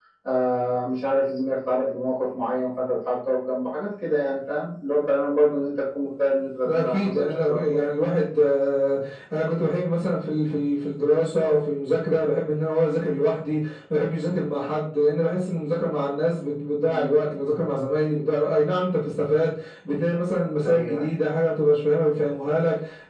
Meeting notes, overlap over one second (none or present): present